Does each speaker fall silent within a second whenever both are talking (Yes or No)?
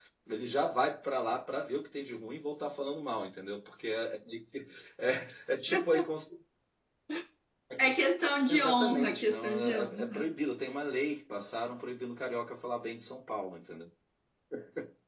No